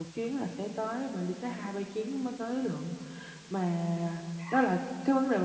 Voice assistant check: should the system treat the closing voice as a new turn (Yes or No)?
No